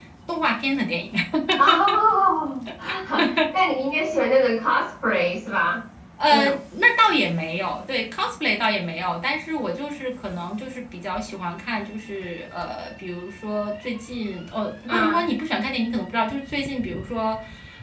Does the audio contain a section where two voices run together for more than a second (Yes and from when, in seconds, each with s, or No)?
No